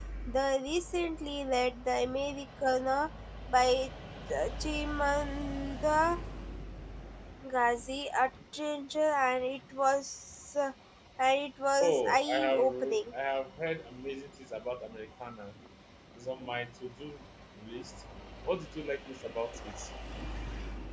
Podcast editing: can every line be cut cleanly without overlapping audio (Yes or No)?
No